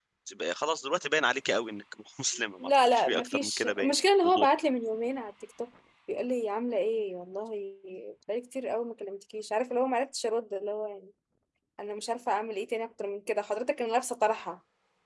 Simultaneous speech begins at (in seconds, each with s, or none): 2.6 s